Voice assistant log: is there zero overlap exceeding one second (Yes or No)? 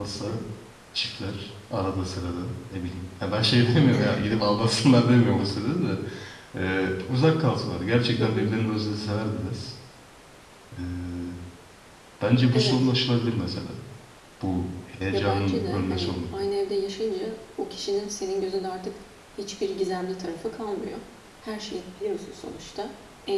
No